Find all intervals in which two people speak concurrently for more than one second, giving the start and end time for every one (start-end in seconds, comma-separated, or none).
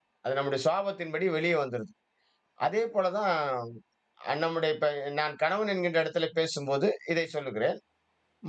none